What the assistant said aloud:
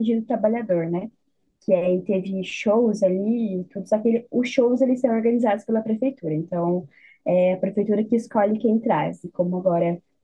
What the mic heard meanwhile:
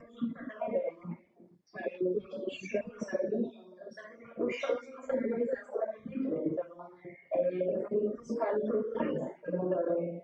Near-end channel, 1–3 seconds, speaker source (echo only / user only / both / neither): echo only